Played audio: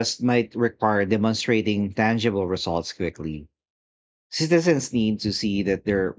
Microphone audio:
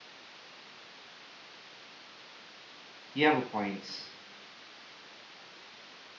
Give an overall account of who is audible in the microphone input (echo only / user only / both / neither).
user only